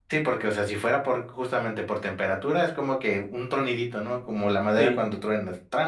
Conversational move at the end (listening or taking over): listening